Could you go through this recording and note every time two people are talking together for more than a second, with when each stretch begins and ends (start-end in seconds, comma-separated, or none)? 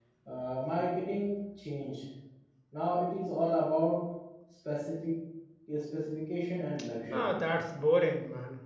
none